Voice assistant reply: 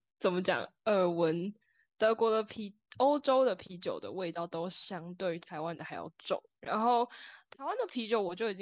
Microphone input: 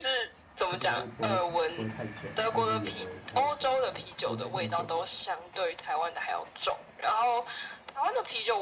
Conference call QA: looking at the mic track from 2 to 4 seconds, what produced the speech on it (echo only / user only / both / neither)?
both